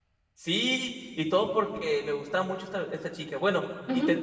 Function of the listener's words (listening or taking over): taking over